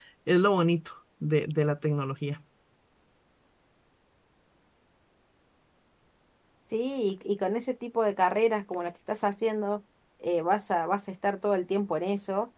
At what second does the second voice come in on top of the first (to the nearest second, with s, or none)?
none